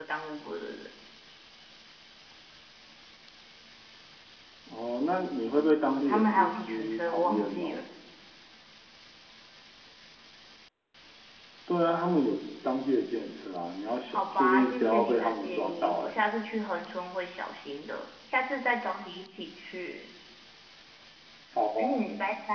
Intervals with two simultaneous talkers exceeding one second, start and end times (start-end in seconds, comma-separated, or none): 5.8-7.8, 14.1-16.1